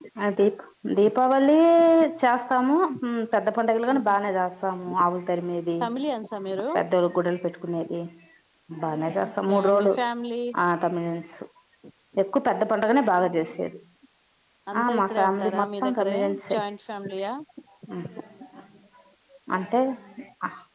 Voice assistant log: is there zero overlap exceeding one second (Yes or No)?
No